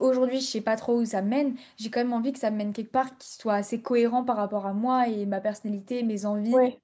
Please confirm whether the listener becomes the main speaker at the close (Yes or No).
No